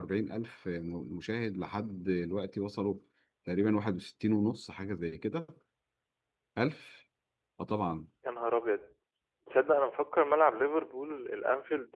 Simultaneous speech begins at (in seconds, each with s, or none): none